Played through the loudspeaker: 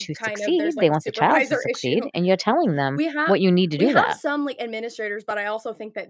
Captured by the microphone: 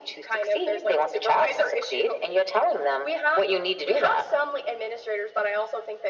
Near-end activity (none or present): none